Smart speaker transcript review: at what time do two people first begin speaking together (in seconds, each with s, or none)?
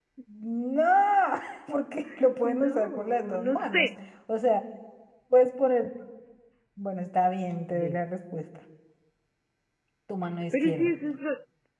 2.4 s